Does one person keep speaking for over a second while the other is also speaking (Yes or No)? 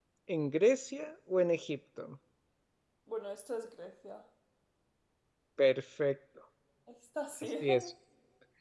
No